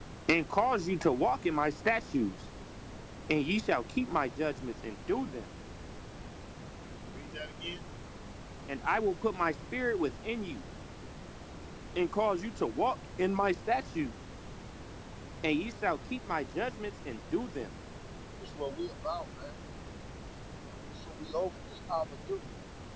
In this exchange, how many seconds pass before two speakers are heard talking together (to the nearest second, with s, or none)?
none